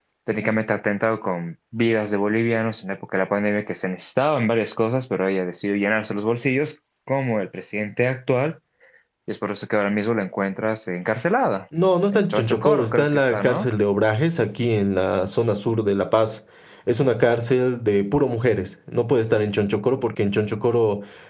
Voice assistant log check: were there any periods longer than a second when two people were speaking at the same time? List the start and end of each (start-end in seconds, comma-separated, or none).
12.1-13.7